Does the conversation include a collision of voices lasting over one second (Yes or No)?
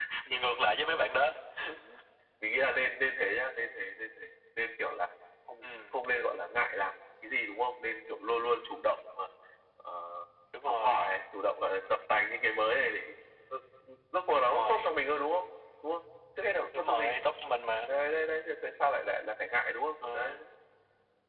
No